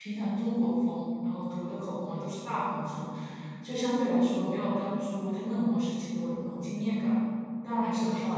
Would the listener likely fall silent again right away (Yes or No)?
No